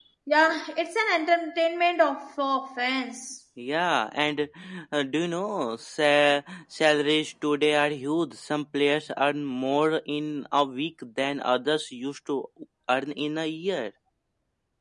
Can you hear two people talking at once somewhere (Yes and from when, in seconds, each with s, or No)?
No